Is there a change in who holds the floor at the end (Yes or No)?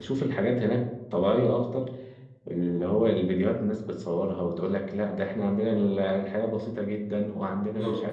No